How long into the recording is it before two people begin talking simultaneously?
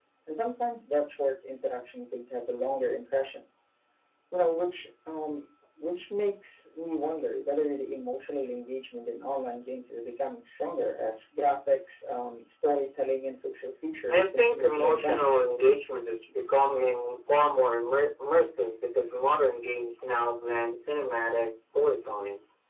14.1 s

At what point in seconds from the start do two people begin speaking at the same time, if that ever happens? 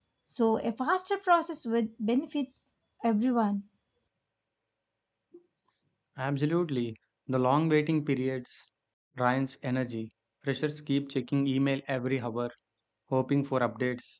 none

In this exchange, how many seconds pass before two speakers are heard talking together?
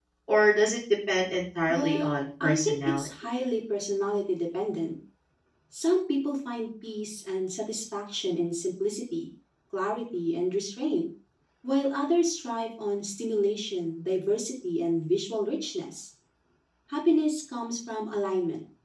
1.7 s

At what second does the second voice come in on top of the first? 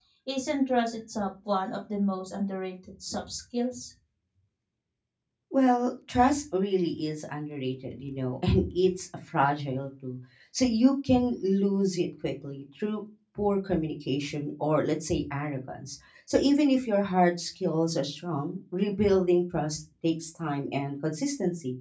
none

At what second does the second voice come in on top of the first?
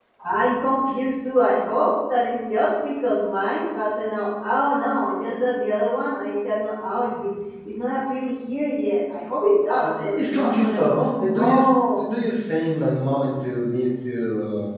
9.8 s

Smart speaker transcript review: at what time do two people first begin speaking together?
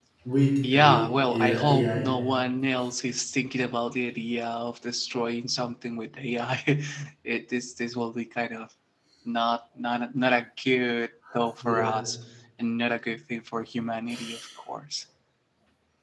0.7 s

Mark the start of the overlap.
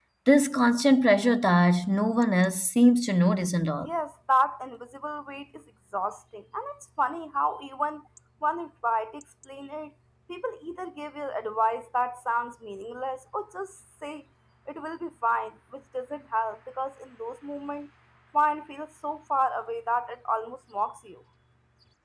none

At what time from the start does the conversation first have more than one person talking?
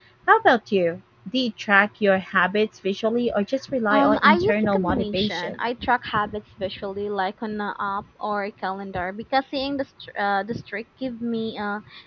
3.9 s

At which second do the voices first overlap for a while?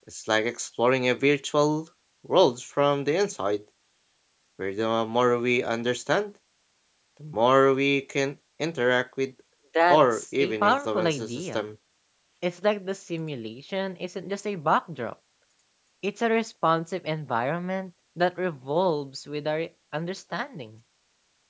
9.9 s

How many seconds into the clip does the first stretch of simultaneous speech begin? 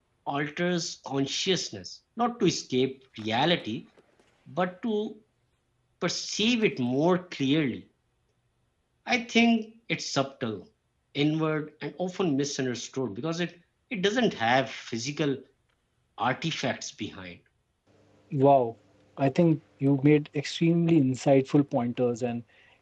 none

